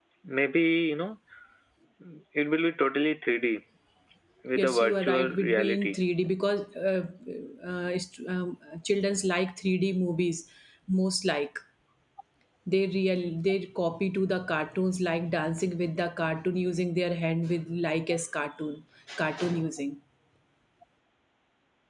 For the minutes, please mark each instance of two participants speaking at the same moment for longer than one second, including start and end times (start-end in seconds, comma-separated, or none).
4.5-6.0